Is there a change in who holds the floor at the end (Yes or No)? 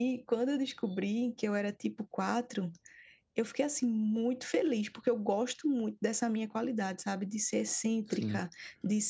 No